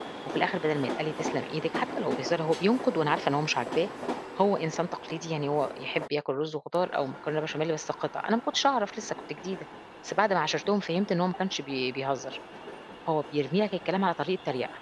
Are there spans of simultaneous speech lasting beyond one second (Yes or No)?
No